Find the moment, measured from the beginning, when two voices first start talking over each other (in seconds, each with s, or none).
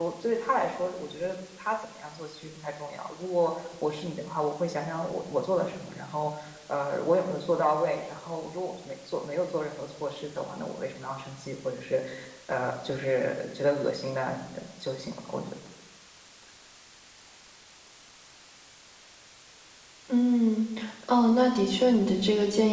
none